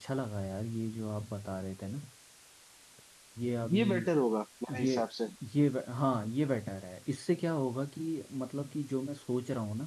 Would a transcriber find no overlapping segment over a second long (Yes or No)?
Yes